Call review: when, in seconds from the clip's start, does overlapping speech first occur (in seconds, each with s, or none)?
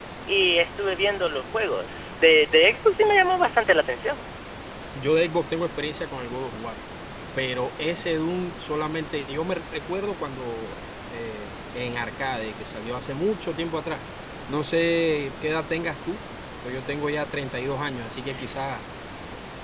none